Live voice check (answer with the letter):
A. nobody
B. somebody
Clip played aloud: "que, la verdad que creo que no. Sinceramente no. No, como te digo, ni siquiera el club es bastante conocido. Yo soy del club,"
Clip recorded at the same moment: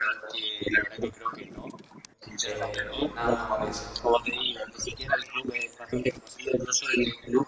B